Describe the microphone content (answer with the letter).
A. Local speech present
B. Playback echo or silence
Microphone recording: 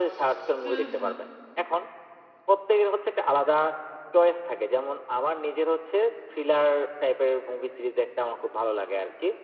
A